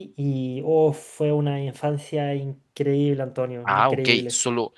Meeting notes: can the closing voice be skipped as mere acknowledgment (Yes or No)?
No